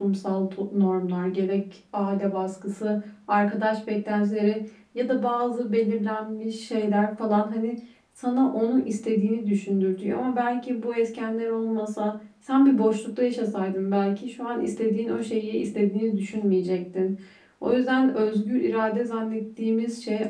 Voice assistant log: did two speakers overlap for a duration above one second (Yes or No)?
No